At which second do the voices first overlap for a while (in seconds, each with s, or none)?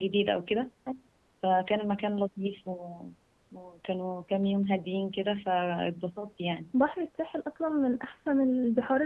none